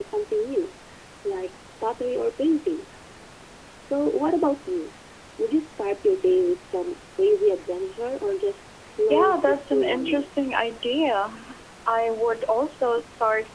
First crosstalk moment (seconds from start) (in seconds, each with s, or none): 9.1 s